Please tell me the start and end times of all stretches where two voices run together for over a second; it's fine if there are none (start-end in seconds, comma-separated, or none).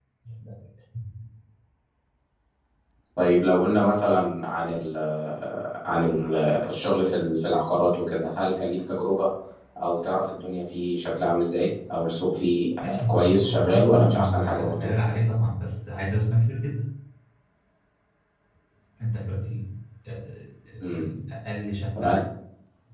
13.1-14.9